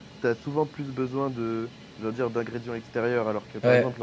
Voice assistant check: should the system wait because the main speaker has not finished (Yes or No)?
Yes